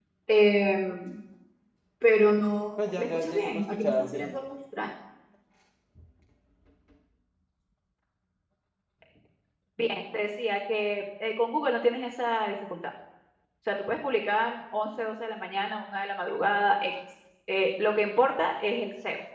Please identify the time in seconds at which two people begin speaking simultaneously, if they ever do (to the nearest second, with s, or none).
3 s